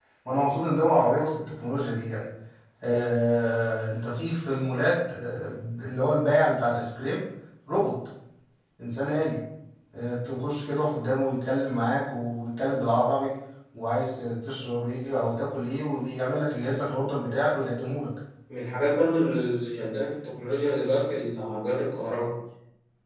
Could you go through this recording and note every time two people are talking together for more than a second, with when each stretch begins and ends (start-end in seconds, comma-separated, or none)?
none